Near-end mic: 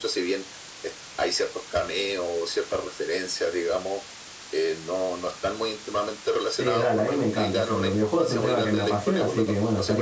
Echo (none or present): present